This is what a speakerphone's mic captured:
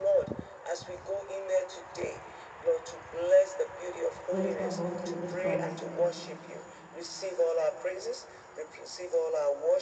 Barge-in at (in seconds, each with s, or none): 4.3 s